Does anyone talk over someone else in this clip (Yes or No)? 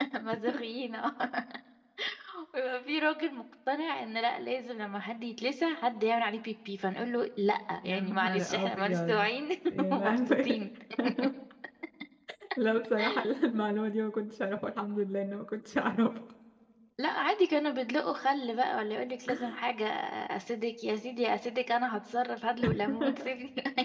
Yes